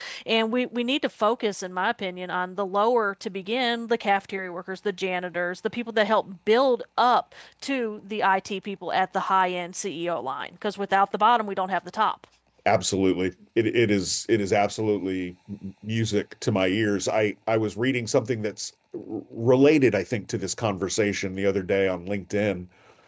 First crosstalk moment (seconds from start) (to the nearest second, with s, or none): none